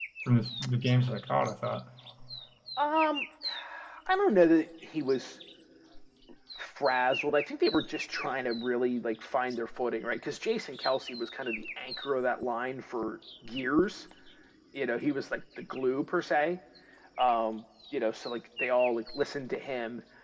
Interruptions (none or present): none